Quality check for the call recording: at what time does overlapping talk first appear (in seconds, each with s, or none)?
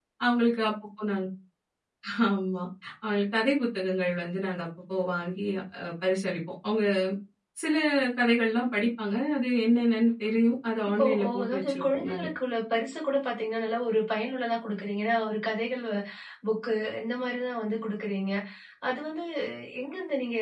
10.8 s